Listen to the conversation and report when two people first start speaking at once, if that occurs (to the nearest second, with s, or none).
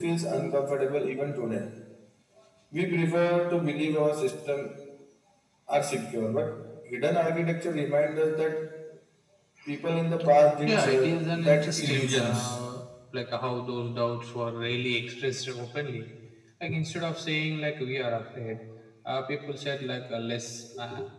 11 s